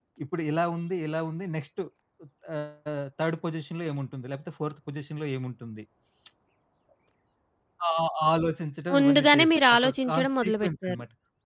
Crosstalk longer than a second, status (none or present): present